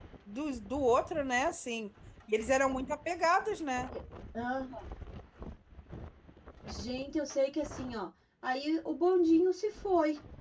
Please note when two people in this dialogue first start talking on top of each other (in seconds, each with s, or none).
none